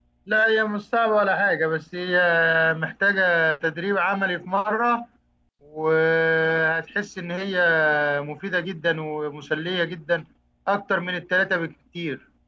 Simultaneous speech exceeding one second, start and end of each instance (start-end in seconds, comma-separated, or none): none